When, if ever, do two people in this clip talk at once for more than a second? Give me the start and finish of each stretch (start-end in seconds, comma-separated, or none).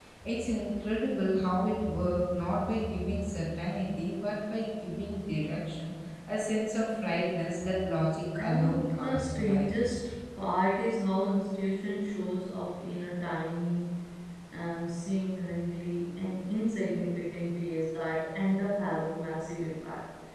8.4-9.8